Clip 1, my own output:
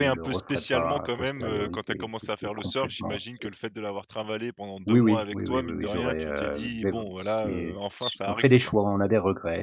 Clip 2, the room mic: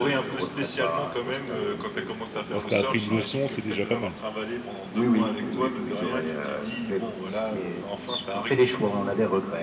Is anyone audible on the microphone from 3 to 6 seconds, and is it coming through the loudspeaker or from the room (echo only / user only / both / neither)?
both